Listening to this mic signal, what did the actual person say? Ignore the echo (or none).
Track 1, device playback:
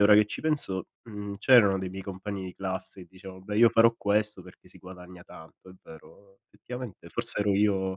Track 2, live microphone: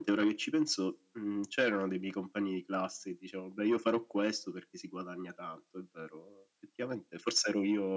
none